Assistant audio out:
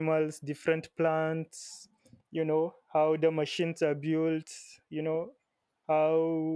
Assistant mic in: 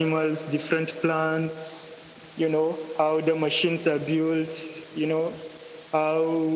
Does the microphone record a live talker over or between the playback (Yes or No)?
No